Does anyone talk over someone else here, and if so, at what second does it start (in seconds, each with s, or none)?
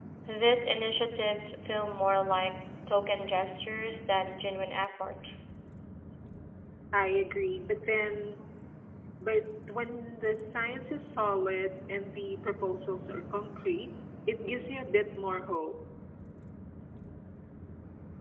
none